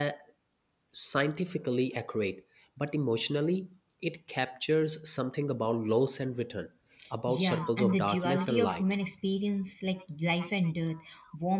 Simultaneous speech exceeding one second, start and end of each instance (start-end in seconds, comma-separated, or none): 7.3-8.8